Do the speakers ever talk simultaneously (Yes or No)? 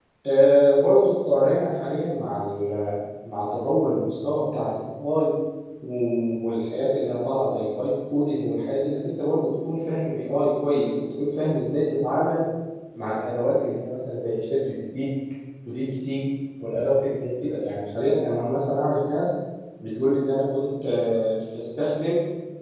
No